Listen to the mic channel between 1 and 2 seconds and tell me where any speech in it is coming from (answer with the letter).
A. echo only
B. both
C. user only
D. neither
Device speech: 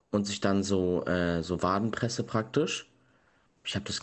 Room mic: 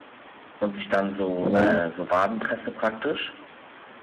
B